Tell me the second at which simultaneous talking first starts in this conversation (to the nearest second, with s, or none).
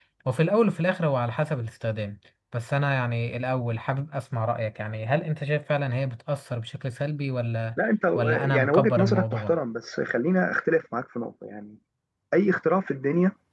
8 s